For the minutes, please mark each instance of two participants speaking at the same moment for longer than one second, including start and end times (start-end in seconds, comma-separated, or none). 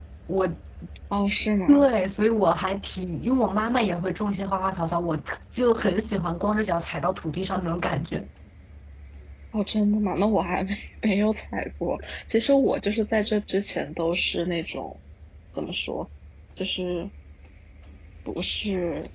none